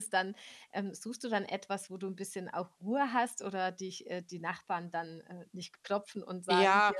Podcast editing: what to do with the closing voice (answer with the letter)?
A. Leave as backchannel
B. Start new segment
B